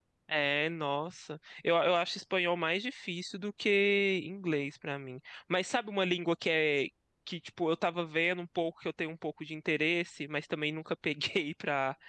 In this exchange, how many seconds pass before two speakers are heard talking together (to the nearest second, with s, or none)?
none